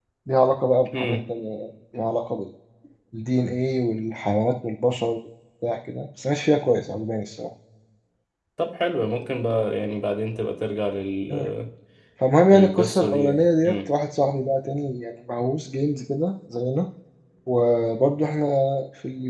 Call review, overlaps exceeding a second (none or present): present